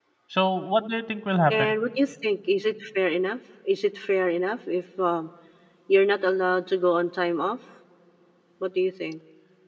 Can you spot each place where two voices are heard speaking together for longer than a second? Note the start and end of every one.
none

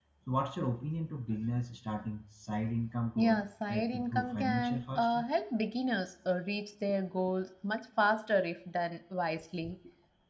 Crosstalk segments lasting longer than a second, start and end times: 3.1-5.2

